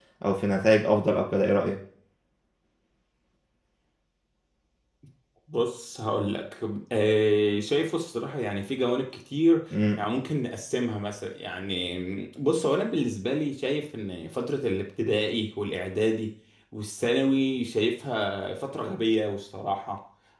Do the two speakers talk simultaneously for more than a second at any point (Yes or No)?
No